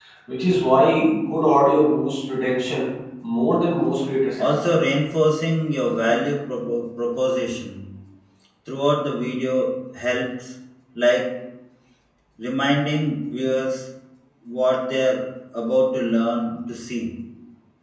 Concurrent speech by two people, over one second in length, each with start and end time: none

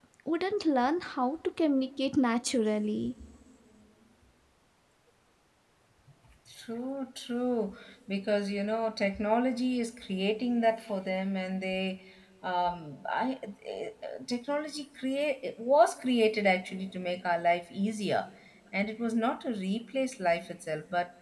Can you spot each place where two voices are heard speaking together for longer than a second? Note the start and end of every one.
none

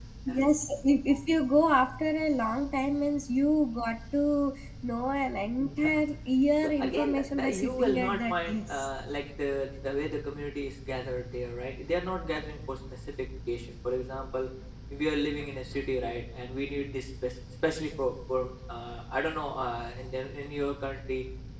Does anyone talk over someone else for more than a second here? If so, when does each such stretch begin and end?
6.6-8.9

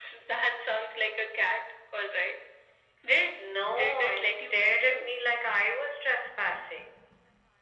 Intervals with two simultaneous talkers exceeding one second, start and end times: 3.7-5.1

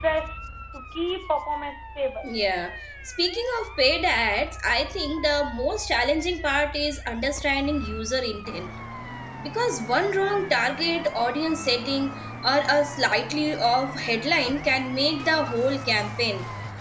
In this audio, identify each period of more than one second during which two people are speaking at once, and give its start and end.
none

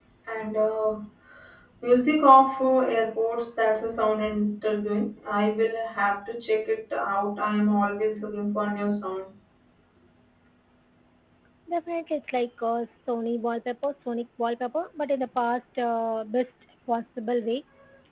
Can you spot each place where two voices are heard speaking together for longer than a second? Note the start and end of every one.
none

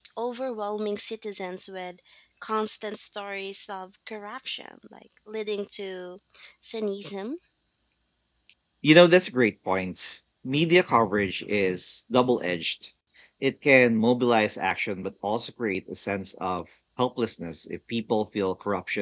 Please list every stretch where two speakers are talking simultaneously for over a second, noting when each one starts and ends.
none

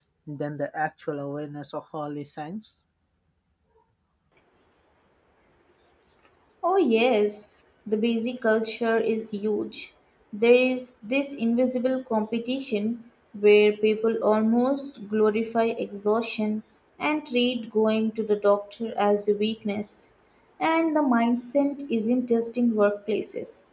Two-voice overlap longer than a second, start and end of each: none

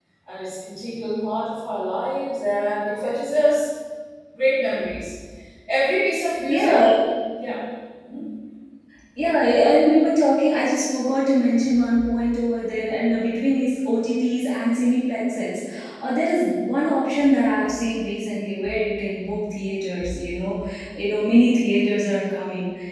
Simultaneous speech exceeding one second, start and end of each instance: none

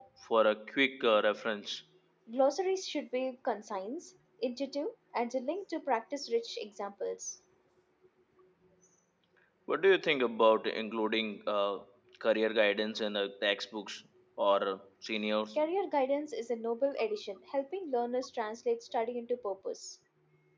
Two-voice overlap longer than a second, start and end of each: none

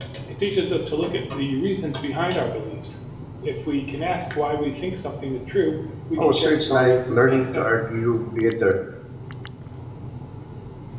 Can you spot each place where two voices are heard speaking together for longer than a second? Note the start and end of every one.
6.2-7.8

